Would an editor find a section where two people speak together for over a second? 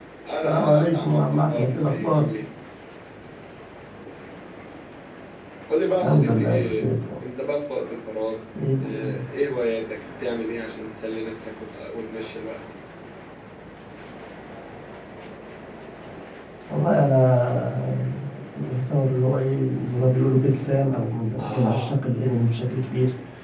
Yes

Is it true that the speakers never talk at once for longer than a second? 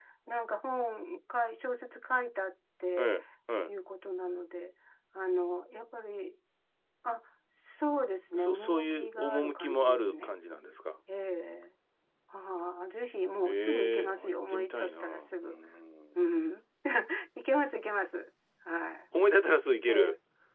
No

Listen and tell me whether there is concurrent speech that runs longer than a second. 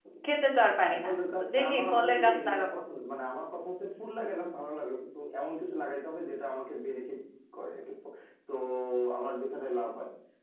Yes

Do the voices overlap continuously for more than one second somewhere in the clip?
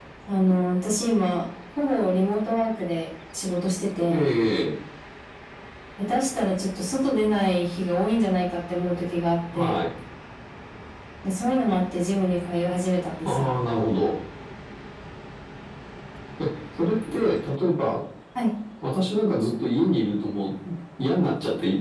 No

